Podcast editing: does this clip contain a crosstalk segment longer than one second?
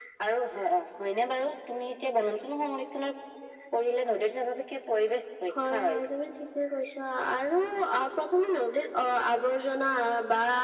No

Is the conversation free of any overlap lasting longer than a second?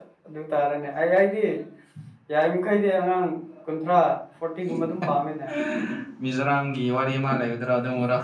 Yes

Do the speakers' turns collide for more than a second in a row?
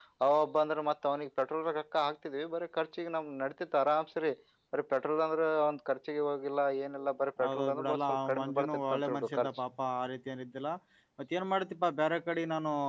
Yes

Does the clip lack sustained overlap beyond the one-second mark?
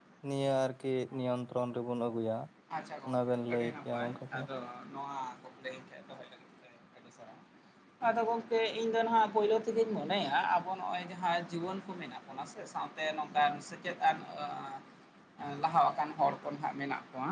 No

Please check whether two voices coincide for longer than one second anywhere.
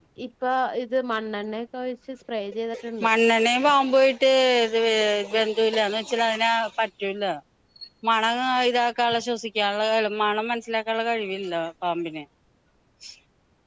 No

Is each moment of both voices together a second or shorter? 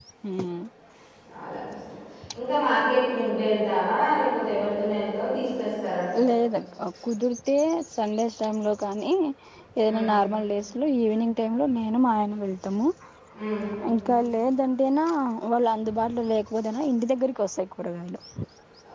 Yes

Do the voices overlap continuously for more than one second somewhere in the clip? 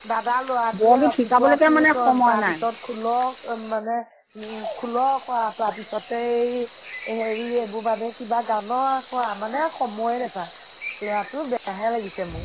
Yes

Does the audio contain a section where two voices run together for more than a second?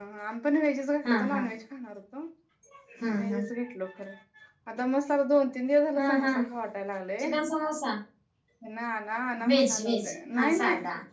Yes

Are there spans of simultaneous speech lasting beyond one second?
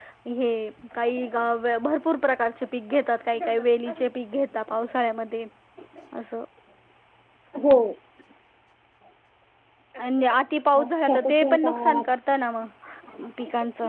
Yes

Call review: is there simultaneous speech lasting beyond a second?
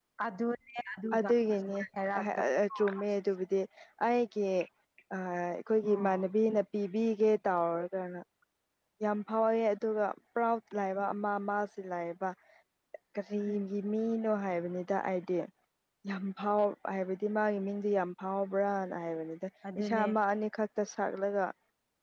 No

